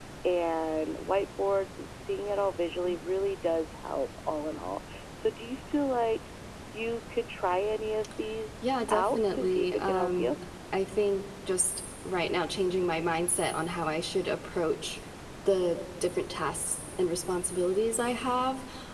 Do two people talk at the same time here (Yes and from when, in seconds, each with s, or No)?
Yes, from 8.6 s